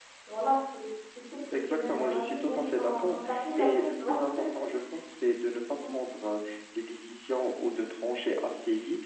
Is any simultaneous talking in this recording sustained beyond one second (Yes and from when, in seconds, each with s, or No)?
Yes, from 1.5 s